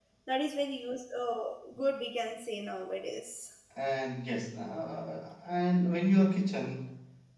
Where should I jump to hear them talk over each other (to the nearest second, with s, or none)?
none